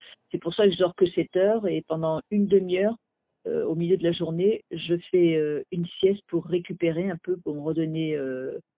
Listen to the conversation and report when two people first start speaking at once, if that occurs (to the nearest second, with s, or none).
none